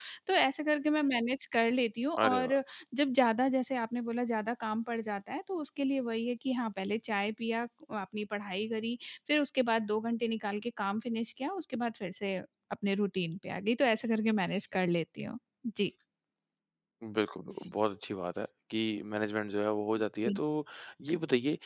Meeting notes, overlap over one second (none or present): none